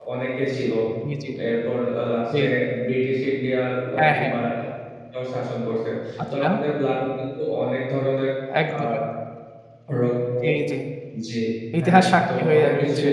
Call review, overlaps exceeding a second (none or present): present